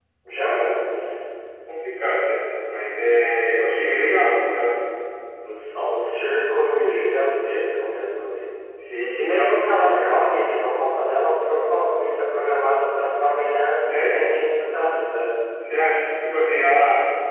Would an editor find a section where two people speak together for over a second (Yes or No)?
No